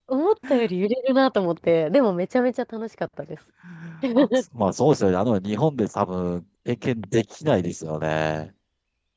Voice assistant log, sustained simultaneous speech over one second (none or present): none